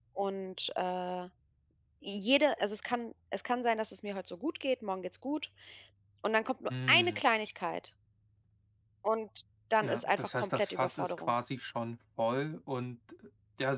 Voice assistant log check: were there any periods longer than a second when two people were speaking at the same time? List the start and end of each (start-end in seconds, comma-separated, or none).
9.8-11.3